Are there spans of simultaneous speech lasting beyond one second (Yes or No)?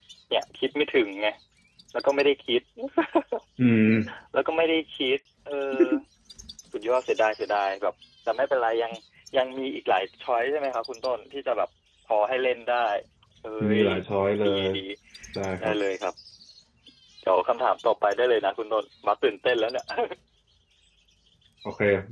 No